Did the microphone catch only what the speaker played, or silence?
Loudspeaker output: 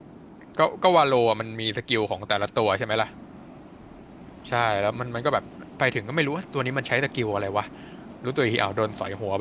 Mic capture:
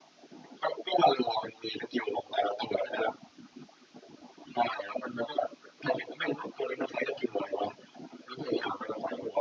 Yes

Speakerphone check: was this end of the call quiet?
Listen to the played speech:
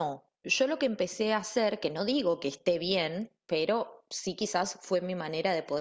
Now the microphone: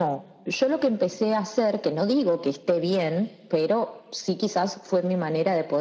Yes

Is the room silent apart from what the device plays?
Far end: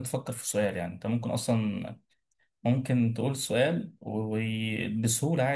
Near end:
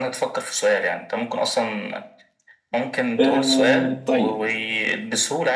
No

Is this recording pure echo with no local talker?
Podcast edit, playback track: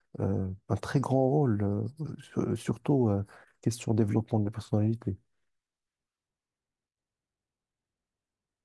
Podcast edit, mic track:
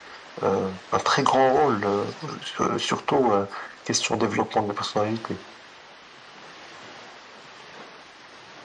Yes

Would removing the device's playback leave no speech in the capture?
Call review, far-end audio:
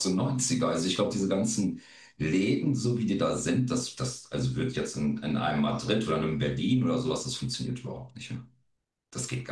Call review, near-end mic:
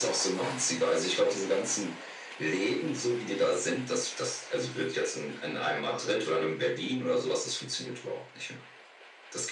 Yes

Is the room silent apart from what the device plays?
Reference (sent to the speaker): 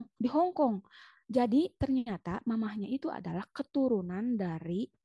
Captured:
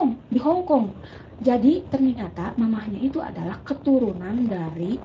Yes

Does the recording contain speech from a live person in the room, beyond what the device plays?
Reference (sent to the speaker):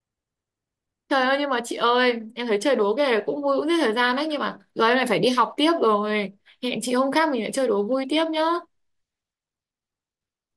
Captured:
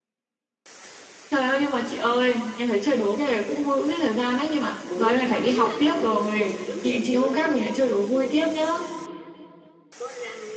Yes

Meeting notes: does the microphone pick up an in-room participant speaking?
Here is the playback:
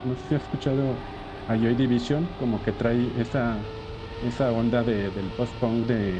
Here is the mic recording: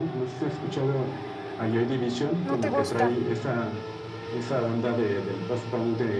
Yes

